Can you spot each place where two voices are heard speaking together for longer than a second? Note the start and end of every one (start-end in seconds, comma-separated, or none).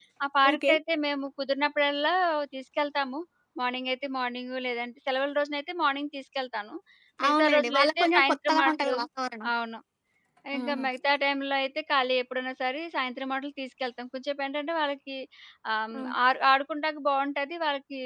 7.3-8.9